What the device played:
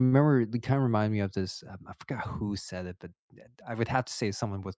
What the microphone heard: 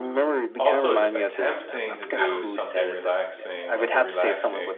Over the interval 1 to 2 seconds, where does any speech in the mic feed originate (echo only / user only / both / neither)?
both